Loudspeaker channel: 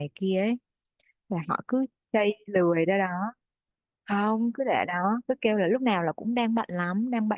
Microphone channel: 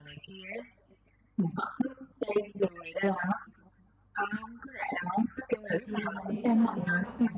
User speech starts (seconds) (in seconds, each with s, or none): 5.8 s